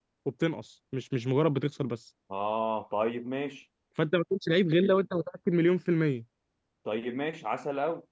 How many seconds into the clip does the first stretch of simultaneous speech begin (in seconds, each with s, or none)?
none